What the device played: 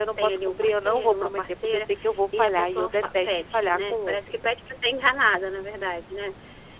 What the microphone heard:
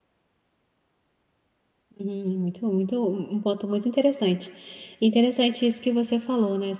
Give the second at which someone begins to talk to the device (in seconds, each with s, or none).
1.9 s